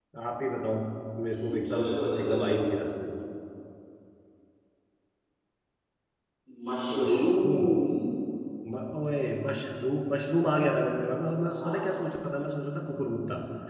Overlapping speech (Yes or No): Yes